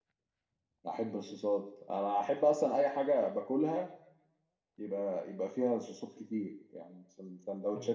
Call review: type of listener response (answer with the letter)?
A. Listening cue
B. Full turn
B